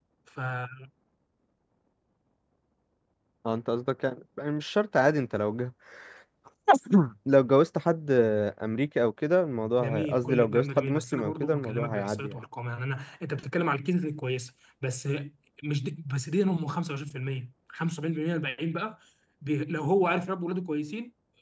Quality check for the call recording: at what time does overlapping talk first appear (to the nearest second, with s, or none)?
10 s